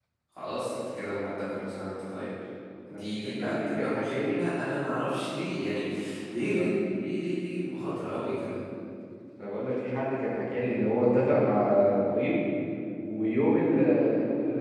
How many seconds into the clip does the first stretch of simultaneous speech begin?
3 s

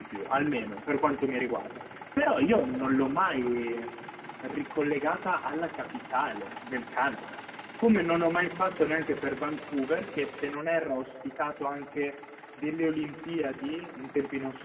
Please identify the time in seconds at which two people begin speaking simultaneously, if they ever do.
none

